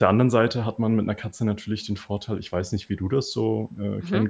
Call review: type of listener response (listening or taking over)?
listening